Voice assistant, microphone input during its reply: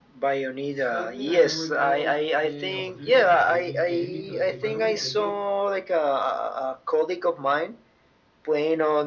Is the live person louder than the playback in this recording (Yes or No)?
No